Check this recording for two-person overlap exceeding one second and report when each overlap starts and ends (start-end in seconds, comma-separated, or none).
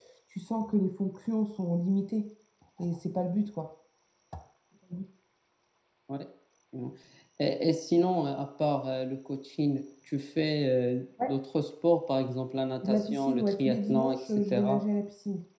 12.8-14.8